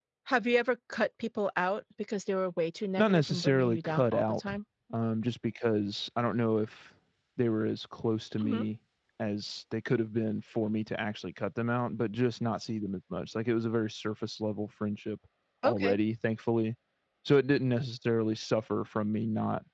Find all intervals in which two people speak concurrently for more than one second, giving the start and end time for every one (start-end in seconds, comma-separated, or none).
3.0-4.5